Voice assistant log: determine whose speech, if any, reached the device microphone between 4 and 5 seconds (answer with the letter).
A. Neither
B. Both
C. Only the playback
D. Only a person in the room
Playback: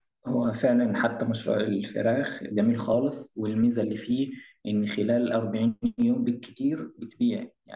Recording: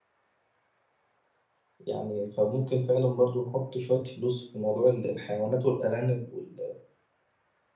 D